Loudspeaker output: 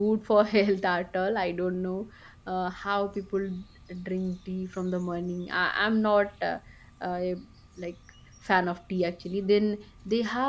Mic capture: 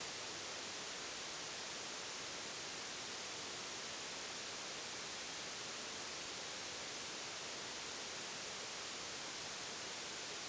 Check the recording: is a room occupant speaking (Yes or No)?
No